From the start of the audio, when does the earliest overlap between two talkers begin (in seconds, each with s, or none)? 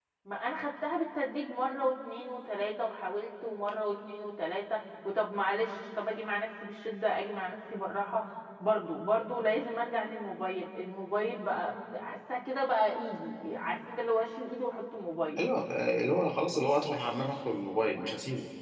none